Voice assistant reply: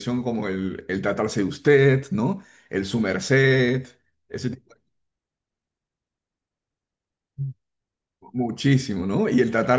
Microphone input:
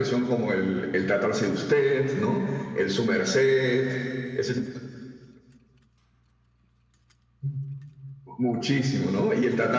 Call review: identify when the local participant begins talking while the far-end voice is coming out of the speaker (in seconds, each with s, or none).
none